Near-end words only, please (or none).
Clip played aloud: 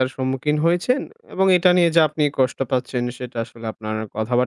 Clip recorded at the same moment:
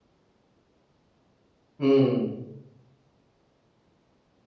হুম।